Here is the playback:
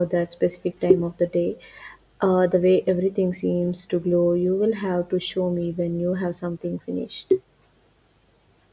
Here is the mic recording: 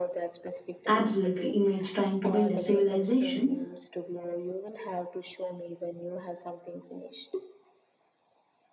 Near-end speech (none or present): present